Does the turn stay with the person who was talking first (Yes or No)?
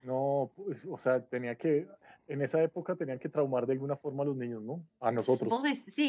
No